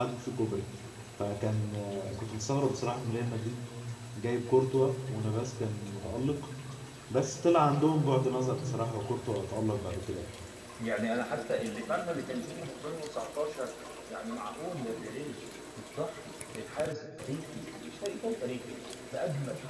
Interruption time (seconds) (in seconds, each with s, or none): none